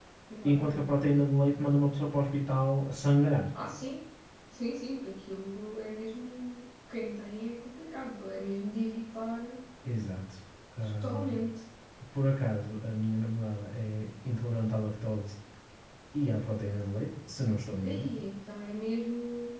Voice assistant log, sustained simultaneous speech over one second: none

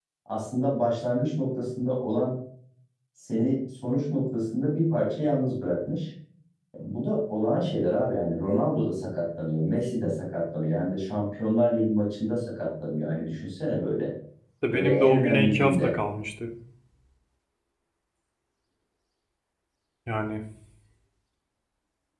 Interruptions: present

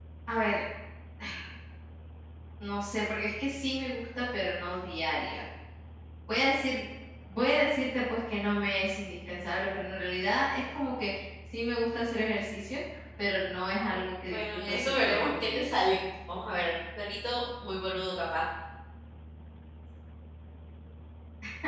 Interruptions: present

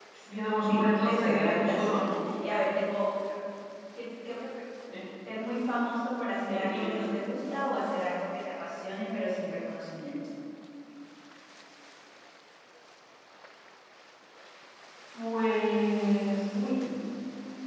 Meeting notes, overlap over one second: present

